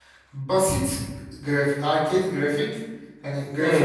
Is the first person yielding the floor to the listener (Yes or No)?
Yes